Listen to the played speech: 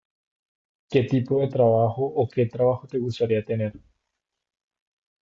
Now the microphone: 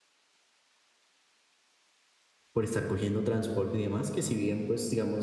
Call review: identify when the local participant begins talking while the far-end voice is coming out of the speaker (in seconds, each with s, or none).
2.5 s